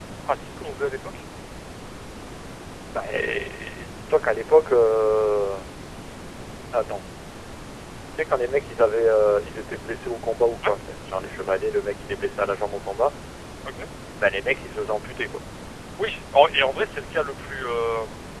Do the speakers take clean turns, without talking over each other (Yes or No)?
Yes